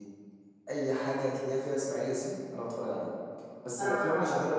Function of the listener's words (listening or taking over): listening